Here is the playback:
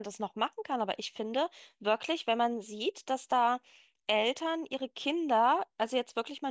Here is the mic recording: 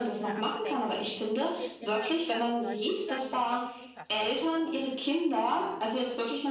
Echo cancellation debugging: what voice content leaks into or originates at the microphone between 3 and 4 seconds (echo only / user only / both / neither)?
both